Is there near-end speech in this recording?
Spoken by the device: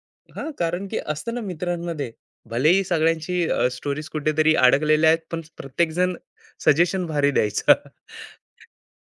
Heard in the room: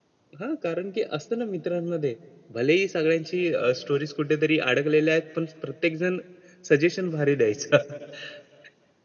No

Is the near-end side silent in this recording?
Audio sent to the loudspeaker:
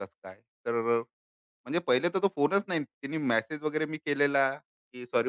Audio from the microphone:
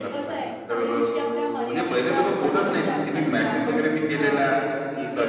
No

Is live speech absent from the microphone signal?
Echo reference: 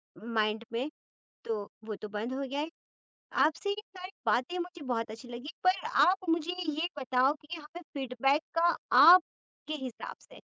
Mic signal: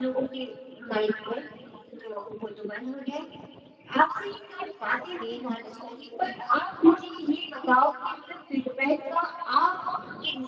No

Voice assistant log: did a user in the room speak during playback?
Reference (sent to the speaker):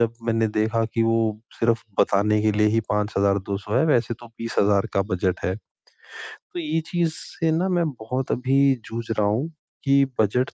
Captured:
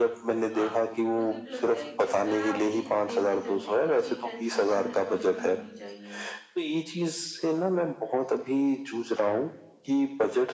Yes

